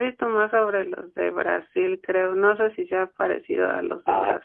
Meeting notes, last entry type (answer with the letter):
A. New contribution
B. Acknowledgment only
A